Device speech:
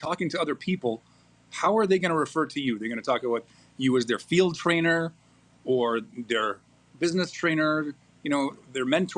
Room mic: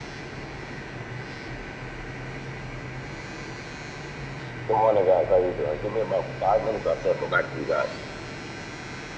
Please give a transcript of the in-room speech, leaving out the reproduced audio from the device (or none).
Good morning, guys. How you doing? Give me about five minutes. I'll circle back to you guys.